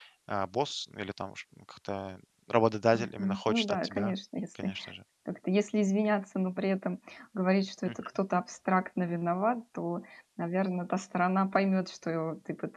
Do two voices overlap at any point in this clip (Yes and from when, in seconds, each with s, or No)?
Yes, from 2.9 s